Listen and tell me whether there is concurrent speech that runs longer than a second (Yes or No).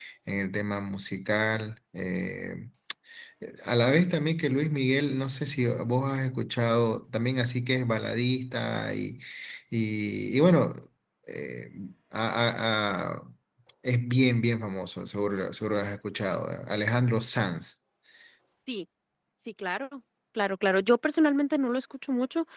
No